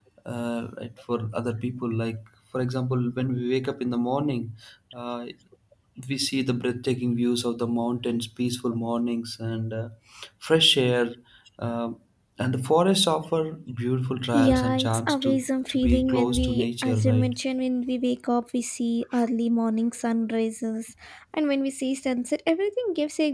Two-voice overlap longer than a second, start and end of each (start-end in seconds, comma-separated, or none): 14.3-17.3